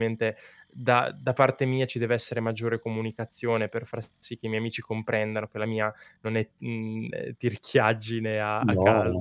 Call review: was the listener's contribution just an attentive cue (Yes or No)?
No